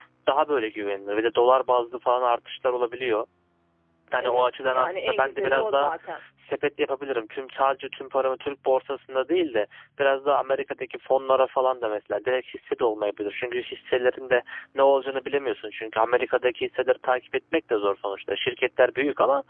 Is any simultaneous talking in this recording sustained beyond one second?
Yes, from 4.2 s

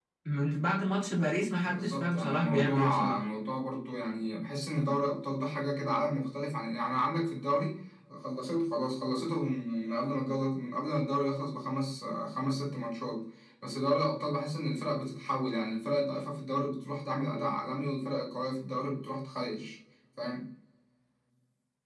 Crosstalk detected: Yes, from 1.6 s

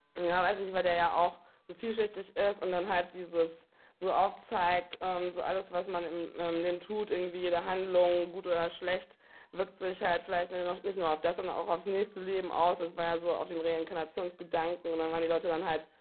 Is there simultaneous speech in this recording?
No

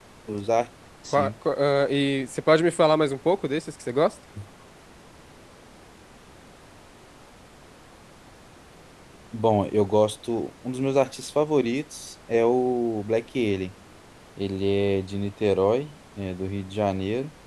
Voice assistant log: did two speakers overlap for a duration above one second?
No

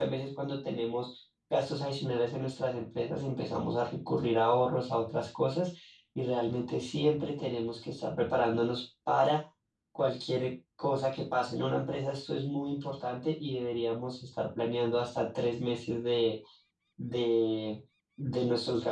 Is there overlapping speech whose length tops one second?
No

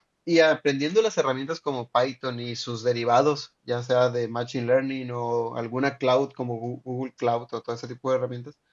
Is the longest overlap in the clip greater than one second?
No

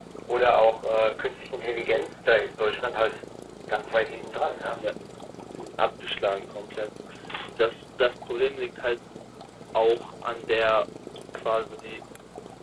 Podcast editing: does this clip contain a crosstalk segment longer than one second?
No

